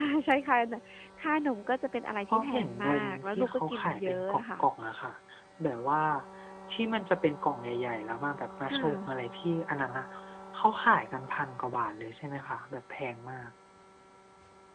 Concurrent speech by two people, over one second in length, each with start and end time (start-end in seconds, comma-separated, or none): 2.3-4.6